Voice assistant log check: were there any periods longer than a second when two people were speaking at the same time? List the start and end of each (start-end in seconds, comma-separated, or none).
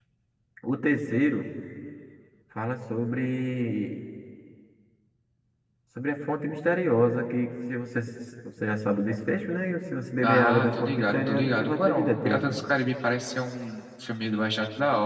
10.2-12.5